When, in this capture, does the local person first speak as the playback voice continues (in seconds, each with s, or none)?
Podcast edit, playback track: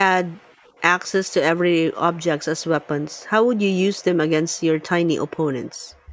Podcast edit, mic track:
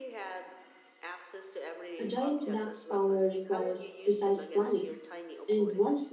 2.0 s